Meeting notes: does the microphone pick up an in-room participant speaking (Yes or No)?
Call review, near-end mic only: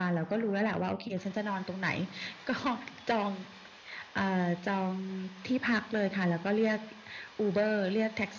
No